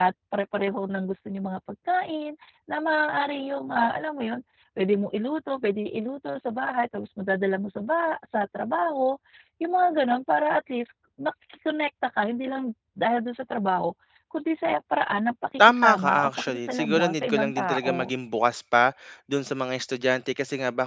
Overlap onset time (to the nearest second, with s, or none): 16 s